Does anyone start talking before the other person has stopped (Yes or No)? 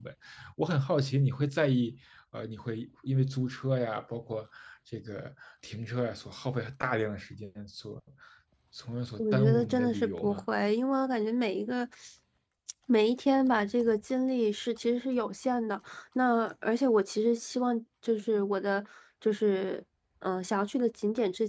Yes